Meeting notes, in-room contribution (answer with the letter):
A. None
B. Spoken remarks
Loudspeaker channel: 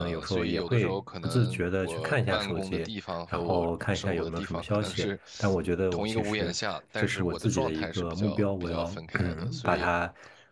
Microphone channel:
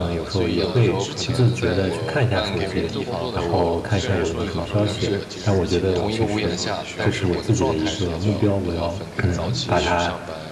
B